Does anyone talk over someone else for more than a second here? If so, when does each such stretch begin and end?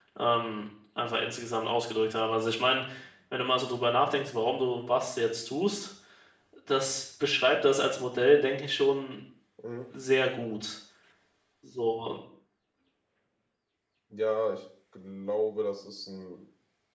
none

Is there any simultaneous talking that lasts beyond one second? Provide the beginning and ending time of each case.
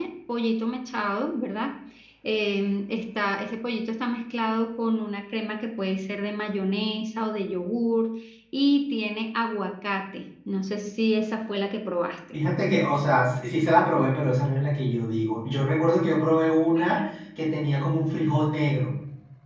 none

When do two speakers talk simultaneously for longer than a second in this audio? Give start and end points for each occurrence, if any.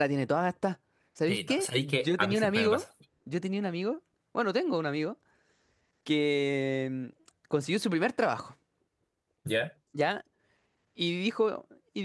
1.3-2.8

